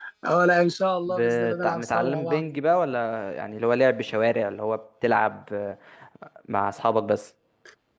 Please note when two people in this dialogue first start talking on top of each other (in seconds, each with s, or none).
1.1 s